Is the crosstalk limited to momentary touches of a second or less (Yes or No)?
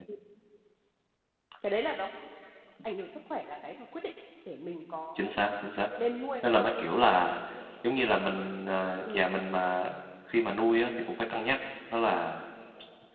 Yes